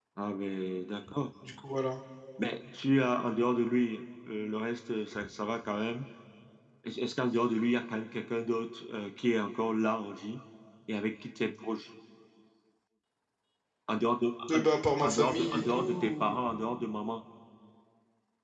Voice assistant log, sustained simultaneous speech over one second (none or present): present